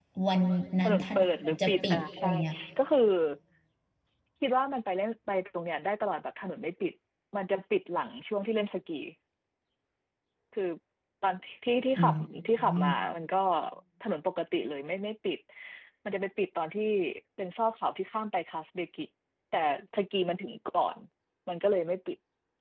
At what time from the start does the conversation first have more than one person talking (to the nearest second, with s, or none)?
1 s